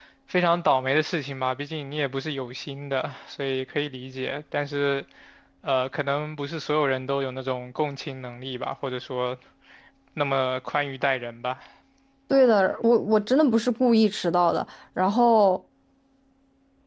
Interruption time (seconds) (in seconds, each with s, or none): none